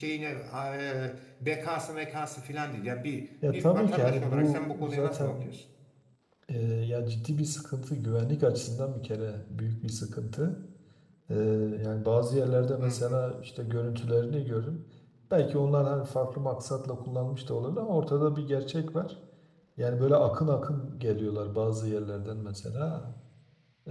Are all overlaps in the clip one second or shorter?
No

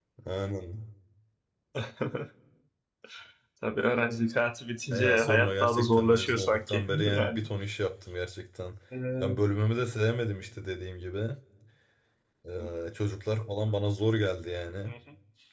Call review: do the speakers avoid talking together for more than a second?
No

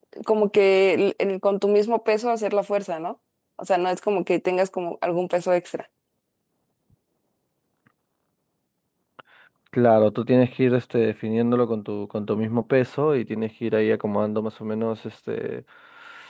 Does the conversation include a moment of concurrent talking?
No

